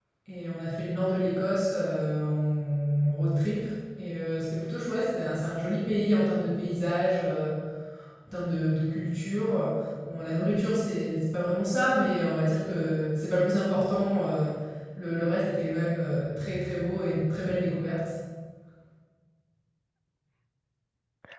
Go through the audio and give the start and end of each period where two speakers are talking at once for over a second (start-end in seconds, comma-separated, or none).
none